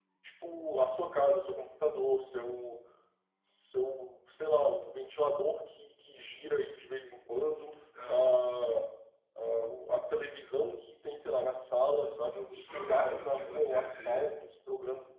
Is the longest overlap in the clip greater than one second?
Yes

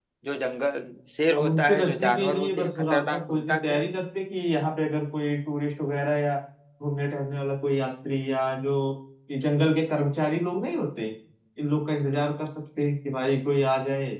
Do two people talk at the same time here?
Yes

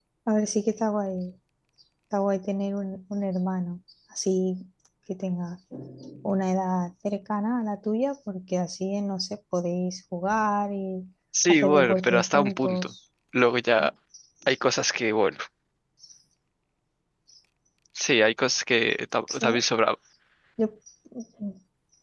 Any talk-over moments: Yes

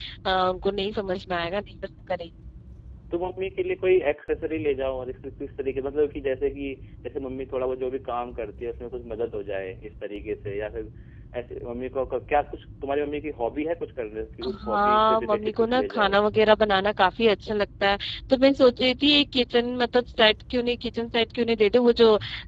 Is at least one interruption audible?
Yes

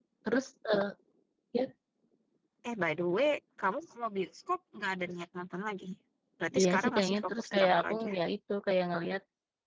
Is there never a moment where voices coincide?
No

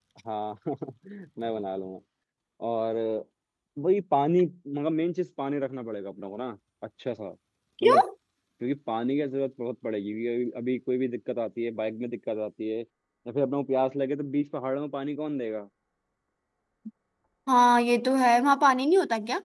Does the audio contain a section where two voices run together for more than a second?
No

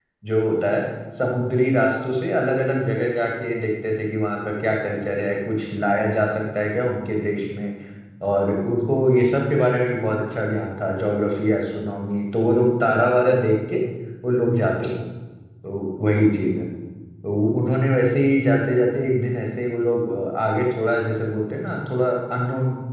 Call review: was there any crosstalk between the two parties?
No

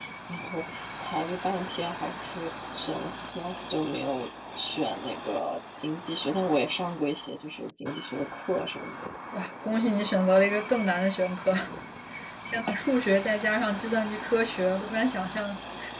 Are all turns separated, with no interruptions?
Yes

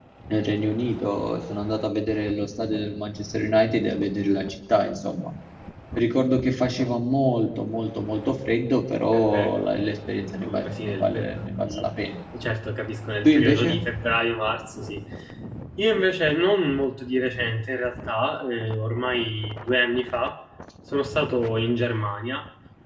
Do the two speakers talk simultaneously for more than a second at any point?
Yes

